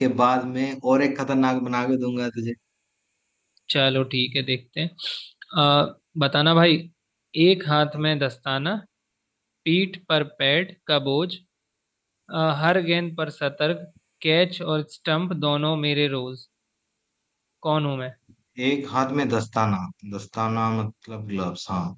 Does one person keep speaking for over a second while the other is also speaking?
No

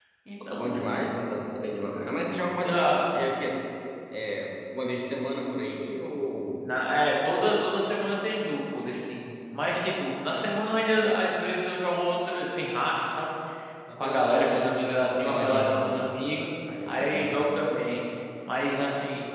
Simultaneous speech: Yes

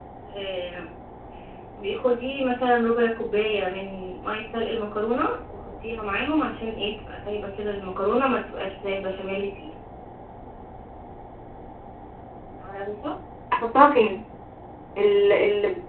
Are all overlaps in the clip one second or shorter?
Yes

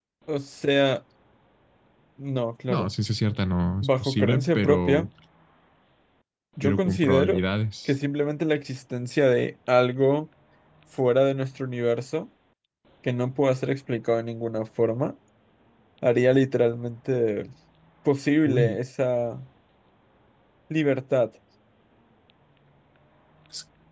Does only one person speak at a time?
No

